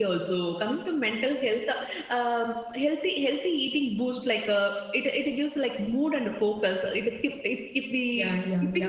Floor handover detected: Yes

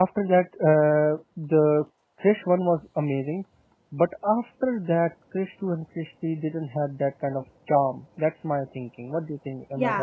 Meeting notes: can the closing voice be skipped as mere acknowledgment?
No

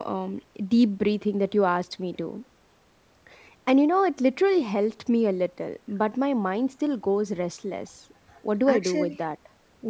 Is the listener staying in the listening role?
No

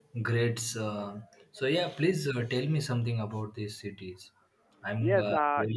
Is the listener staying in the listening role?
No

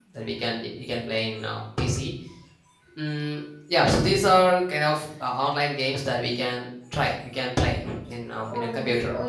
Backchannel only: No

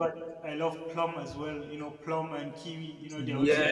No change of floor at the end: No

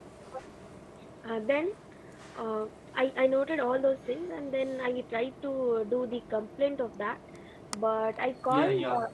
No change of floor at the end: No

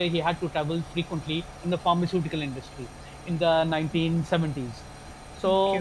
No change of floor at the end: Yes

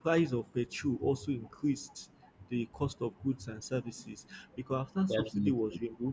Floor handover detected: No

